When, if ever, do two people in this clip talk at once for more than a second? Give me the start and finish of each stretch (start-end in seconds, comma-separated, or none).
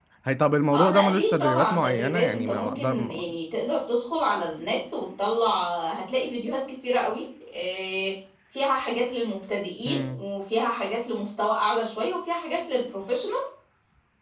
0.7-3.2